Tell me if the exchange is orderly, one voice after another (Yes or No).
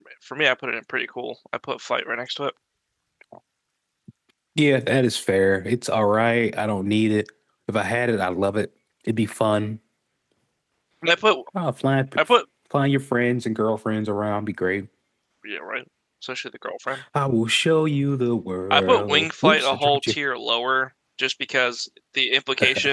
No